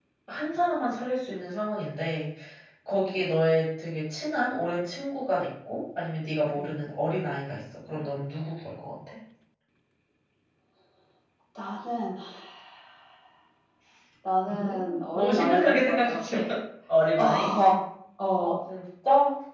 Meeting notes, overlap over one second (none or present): present